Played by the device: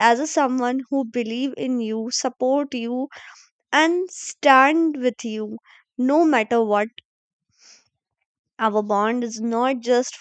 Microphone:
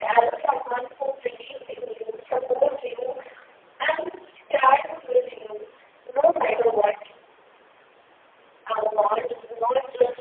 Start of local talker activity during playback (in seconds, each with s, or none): none